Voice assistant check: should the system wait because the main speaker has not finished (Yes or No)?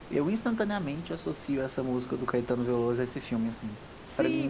No